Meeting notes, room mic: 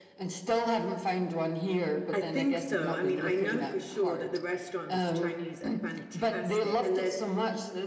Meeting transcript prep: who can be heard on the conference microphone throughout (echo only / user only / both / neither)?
both